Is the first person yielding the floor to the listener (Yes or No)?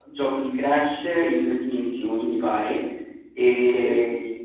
No